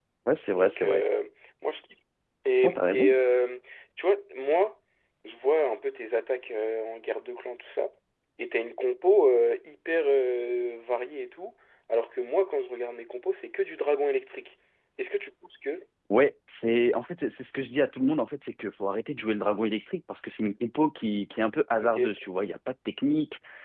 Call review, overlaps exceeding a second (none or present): none